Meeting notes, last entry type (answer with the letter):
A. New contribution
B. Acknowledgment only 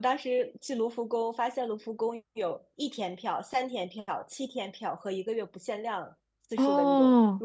B